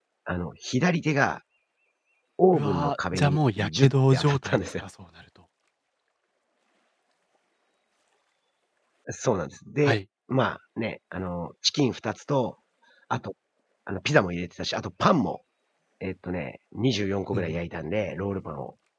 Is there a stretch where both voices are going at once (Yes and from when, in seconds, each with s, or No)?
Yes, from 2.5 s